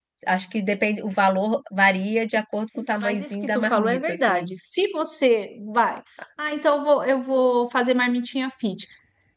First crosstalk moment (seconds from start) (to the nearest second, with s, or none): 3 s